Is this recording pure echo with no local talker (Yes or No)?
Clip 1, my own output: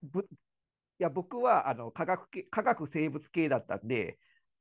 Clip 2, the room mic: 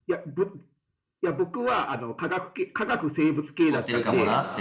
No